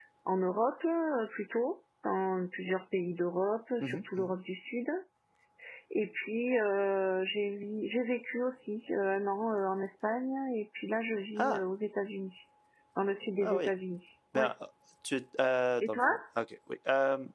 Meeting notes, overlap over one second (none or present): none